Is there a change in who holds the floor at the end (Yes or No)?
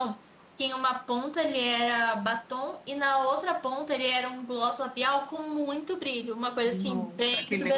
Yes